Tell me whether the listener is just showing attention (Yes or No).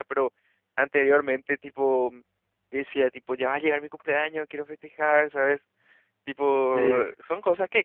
Yes